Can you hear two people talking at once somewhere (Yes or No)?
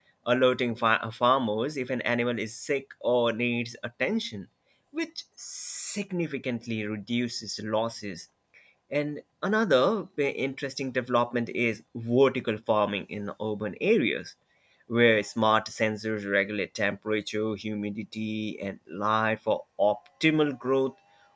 No